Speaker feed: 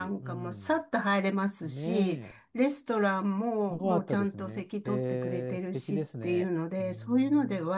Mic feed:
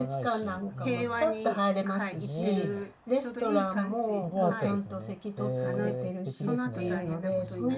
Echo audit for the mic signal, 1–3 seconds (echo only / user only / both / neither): both